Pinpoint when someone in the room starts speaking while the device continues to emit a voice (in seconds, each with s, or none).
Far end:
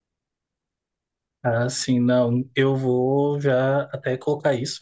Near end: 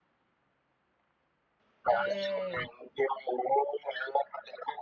1.9 s